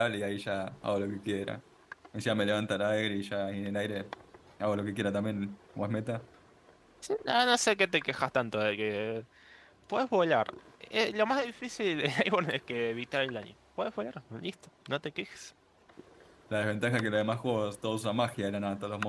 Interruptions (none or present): none